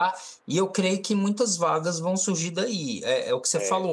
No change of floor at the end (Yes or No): Yes